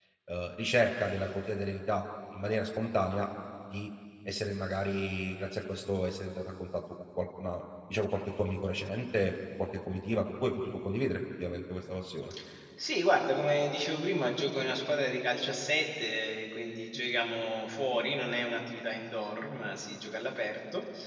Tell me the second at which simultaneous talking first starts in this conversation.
none

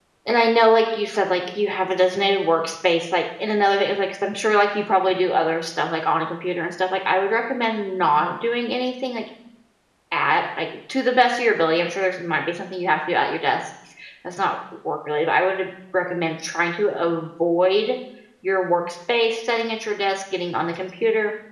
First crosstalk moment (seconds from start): none

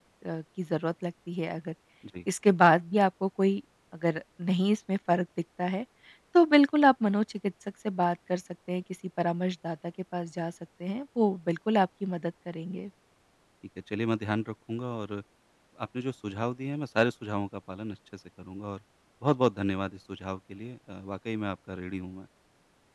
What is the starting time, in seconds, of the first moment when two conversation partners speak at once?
none

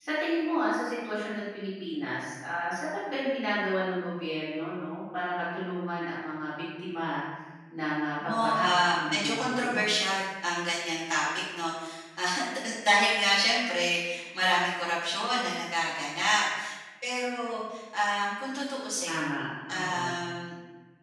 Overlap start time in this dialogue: 8 s

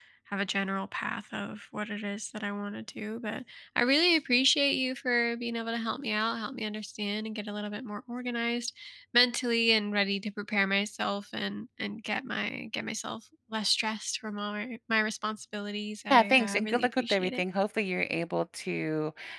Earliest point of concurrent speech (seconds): 16 s

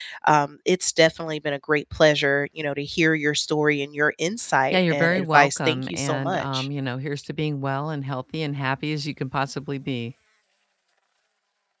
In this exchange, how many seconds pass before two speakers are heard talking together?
5 s

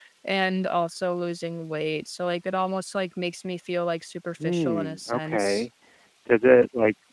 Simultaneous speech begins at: 4 s

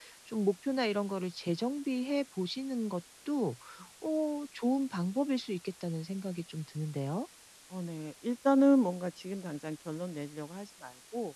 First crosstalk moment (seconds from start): none

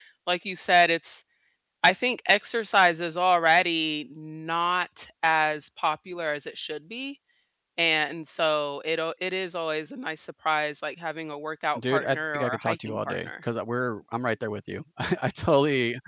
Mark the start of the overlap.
12 s

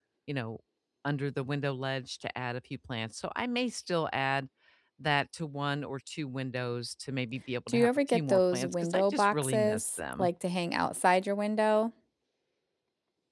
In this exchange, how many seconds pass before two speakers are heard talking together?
8 s

